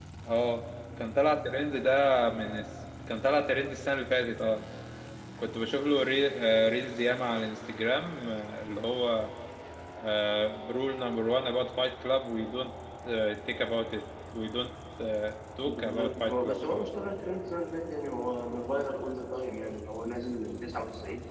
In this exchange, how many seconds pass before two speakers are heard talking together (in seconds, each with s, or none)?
15.7 s